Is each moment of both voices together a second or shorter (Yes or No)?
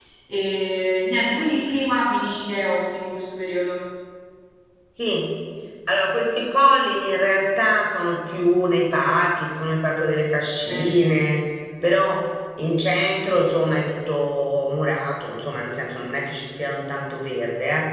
Yes